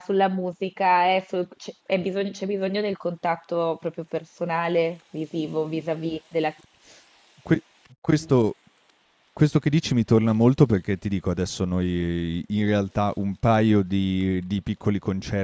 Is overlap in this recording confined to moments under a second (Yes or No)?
Yes